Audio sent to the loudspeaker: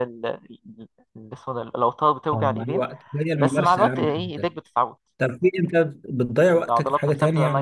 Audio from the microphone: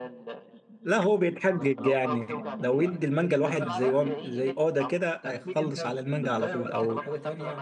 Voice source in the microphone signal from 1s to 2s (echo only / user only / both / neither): both